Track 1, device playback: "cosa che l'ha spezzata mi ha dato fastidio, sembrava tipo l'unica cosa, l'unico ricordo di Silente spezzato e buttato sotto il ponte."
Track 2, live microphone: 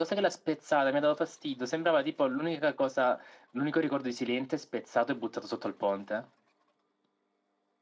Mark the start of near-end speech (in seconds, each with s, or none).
none